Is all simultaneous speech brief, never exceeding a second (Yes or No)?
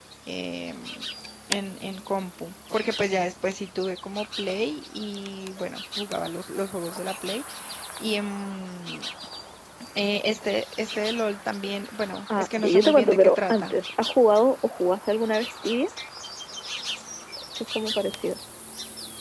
No